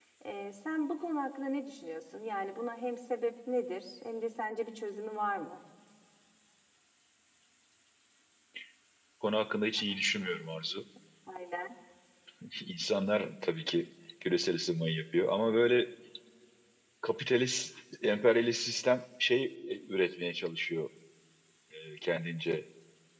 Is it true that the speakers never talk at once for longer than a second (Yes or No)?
Yes